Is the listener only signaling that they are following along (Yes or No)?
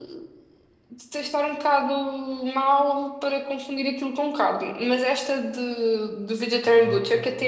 Yes